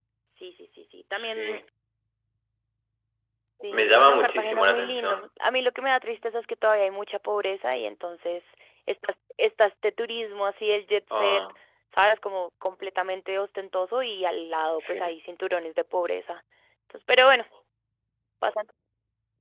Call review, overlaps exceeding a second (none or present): present